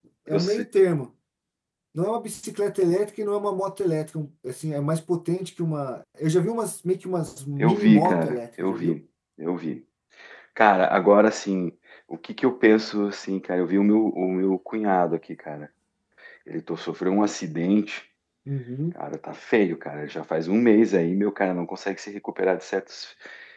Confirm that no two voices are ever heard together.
No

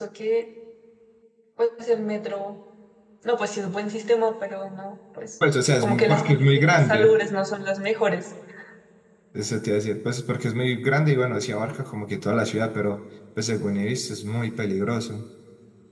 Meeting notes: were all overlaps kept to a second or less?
No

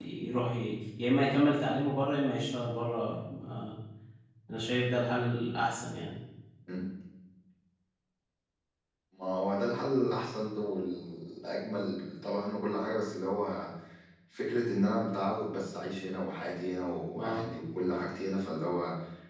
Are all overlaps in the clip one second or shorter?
Yes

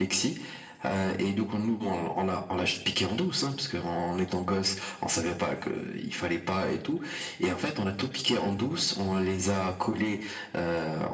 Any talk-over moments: No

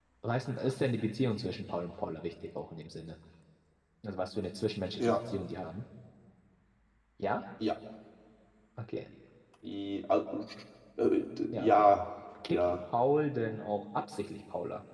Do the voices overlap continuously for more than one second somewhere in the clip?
No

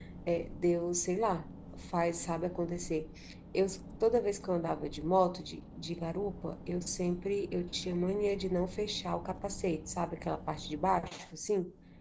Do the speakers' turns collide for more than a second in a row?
No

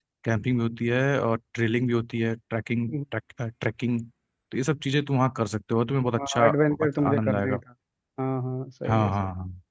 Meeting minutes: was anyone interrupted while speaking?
Yes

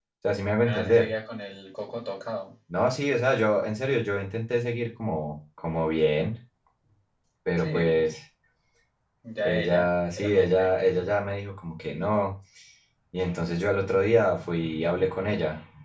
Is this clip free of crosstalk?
No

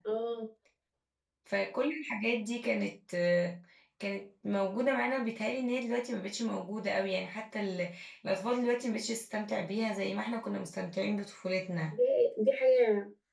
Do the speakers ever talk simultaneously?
No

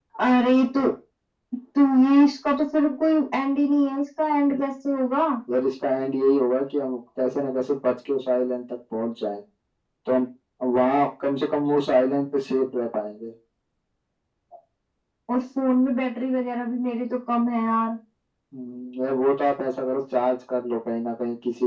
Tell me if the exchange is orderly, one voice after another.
Yes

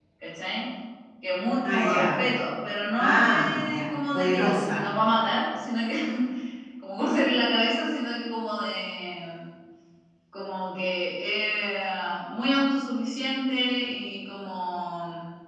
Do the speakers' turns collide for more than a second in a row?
Yes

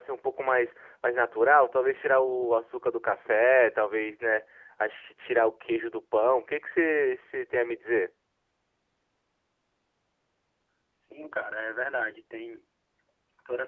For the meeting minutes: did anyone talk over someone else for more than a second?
No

